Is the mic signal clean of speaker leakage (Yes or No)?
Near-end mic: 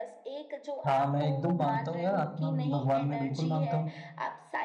No